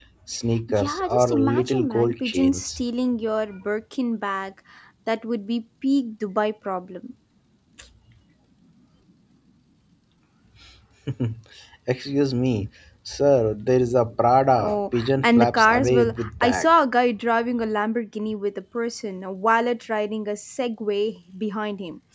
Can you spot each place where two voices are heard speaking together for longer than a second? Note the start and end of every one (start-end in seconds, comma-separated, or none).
0.7-2.8, 14.6-16.7